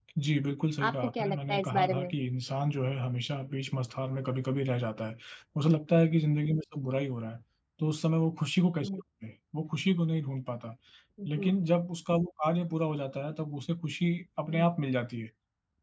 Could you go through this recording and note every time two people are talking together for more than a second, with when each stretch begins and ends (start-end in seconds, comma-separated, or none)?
0.9-2.1